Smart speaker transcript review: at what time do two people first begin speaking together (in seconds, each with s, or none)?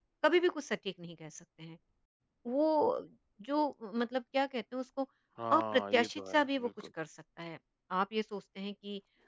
5.5 s